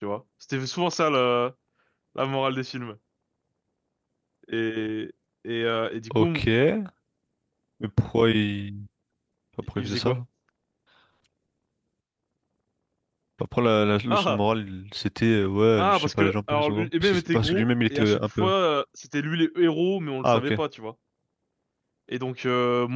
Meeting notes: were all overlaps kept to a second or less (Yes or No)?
No